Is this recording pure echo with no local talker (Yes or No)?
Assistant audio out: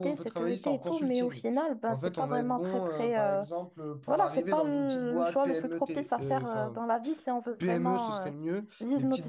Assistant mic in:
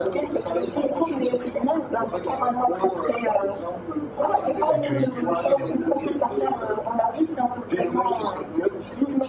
No